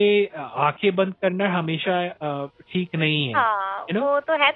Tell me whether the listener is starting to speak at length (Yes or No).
Yes